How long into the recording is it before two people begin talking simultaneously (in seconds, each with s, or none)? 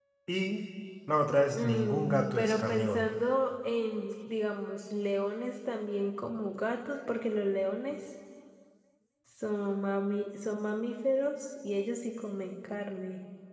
1.5 s